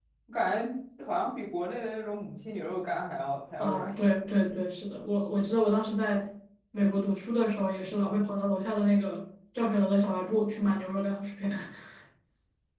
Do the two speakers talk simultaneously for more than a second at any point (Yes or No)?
No